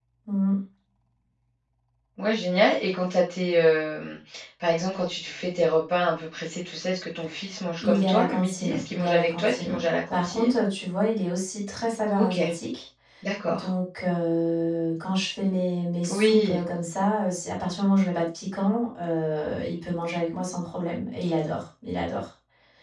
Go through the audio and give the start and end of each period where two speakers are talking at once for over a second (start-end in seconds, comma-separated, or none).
7.8-10.6